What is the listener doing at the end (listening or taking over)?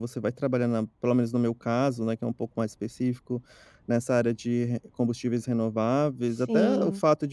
listening